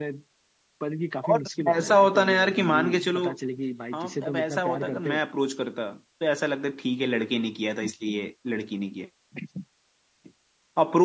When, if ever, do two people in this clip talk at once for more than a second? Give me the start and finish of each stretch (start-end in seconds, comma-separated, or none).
1.3-3.3, 3.9-5.2